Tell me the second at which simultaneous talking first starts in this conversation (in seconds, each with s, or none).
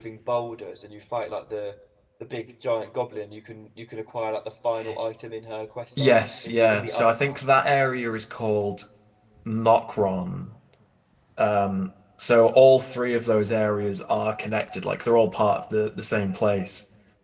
6.0 s